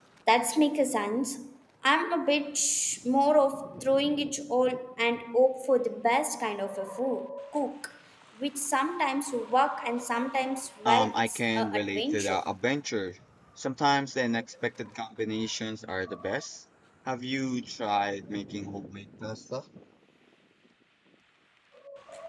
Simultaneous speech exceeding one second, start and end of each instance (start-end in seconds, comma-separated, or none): 10.8-12.4